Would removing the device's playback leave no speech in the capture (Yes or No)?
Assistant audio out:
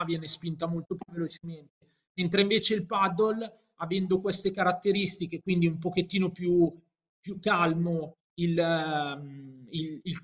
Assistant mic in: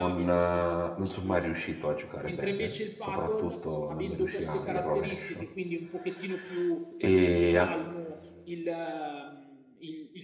No